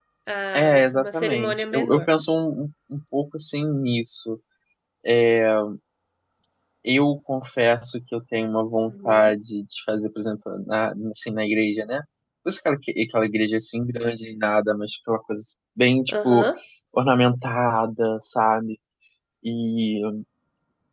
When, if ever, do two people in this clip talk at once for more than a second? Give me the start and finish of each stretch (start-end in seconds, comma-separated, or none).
0.5-2.1